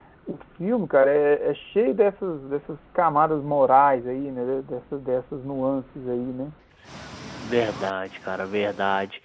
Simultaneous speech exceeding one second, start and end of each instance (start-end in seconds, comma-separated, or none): none